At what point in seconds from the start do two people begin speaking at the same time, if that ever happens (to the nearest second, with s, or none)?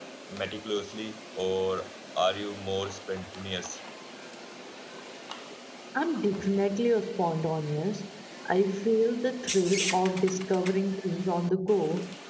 none